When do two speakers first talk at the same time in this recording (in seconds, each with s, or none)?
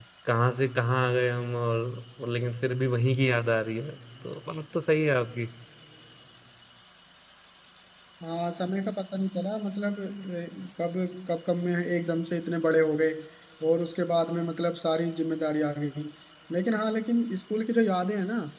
none